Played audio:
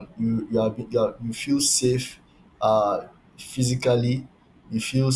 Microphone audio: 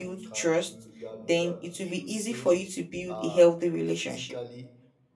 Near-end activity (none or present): present